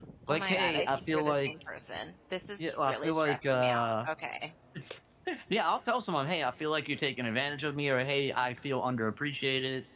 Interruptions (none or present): present